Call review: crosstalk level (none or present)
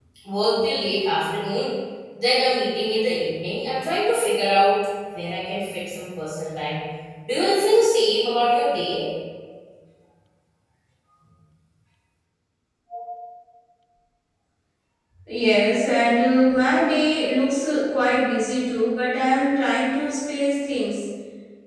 none